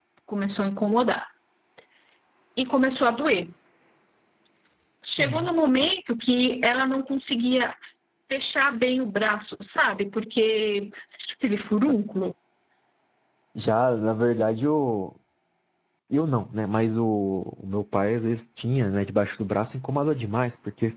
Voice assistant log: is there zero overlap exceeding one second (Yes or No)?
Yes